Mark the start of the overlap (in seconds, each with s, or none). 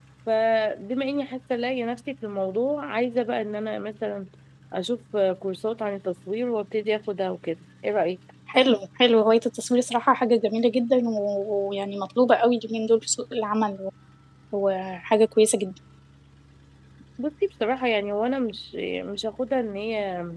none